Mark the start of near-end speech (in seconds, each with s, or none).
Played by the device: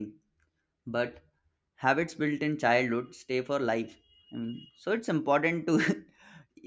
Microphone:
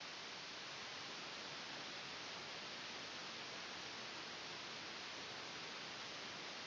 none